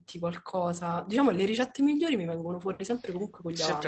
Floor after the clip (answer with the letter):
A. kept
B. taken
B